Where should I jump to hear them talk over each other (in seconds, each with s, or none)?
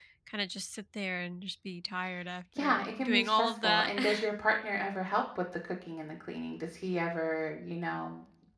2.5 s